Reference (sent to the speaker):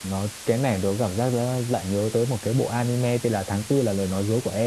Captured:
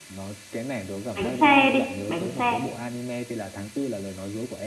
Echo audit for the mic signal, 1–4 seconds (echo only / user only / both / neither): both